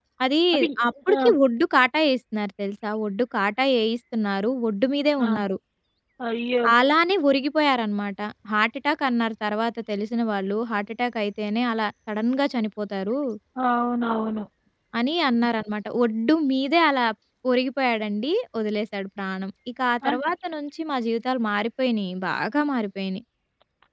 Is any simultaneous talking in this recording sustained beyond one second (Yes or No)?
No